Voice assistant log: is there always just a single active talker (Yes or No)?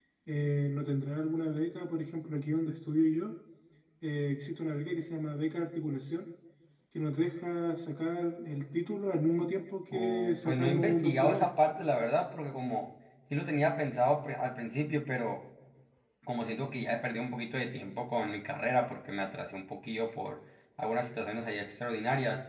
No